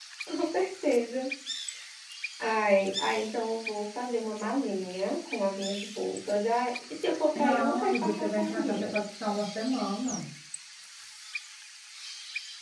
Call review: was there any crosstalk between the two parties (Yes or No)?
Yes